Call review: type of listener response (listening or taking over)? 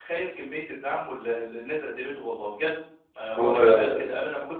listening